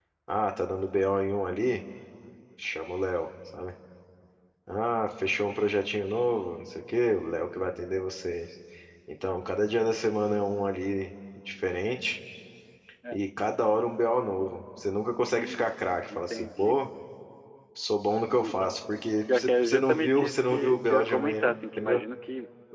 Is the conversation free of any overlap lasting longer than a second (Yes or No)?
No